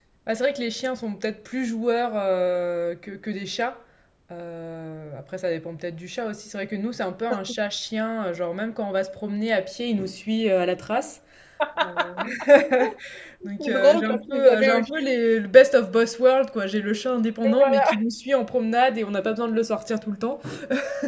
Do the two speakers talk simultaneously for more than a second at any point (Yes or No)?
Yes